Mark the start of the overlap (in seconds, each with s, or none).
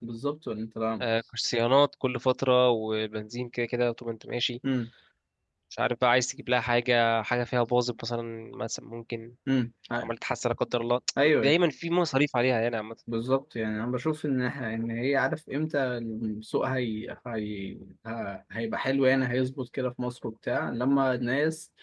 none